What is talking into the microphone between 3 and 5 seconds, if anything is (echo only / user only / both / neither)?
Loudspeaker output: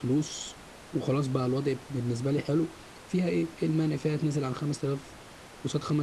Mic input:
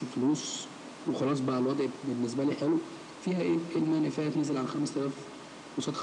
both